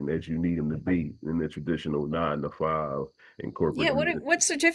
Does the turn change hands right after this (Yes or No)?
Yes